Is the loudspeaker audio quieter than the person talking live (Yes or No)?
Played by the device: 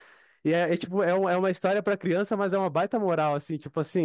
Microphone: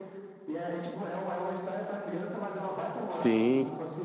Yes